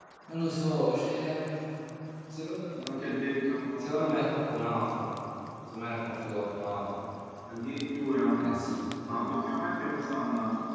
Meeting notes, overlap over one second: none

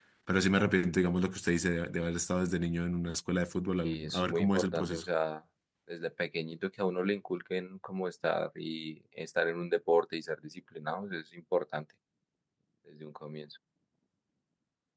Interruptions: present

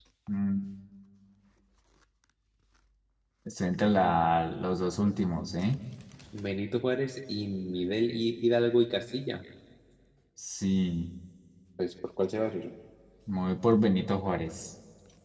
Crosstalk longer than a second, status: none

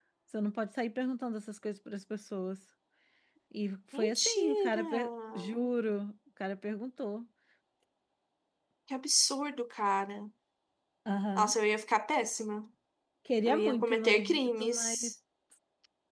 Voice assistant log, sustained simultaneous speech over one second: present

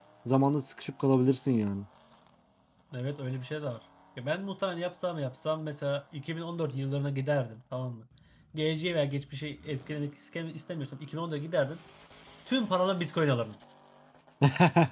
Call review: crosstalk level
none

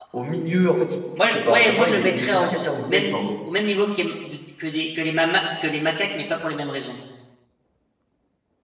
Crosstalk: present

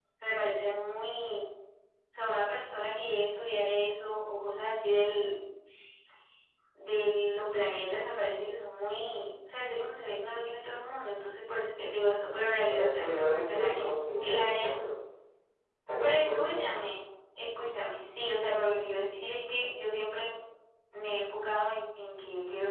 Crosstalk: present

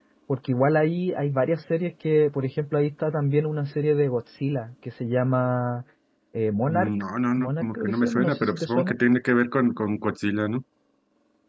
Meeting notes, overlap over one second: present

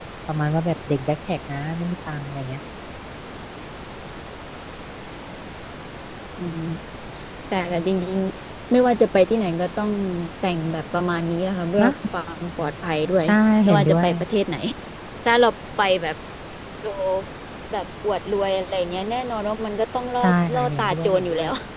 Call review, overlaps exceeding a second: present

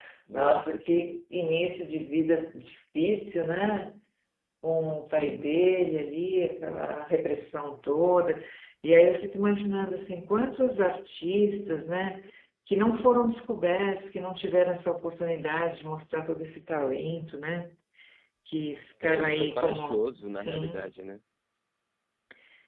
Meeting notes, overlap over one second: present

